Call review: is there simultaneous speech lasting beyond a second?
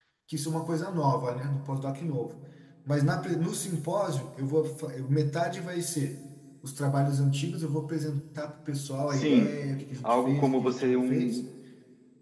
Yes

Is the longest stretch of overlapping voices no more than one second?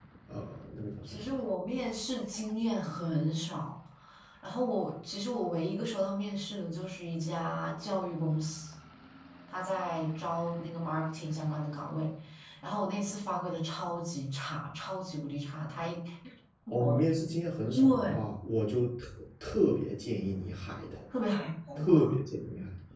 Yes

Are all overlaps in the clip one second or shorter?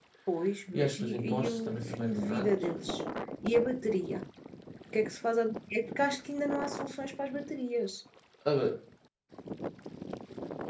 No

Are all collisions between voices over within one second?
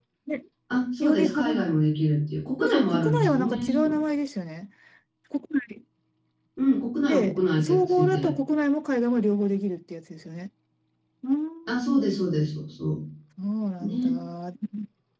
No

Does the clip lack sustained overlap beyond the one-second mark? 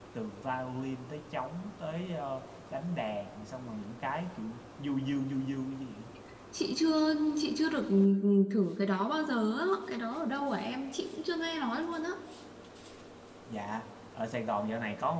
Yes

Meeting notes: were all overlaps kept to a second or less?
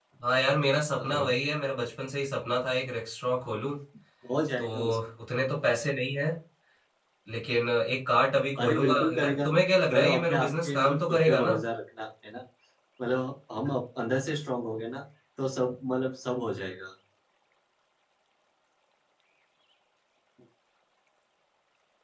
No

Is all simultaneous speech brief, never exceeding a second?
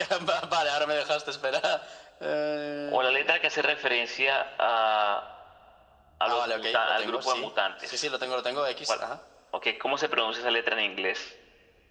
No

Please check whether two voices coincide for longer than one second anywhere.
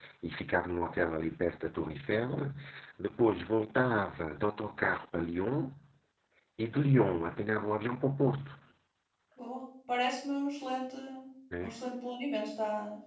No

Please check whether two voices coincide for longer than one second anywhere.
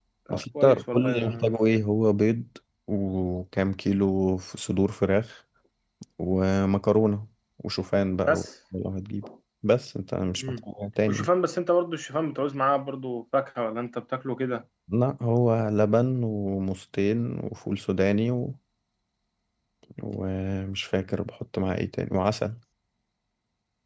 Yes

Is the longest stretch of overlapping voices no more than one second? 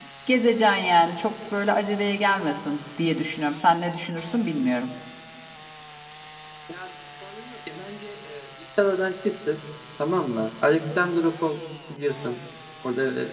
Yes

